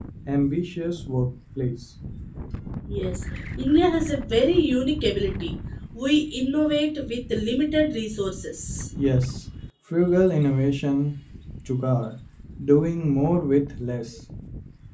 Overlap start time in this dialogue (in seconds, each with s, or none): none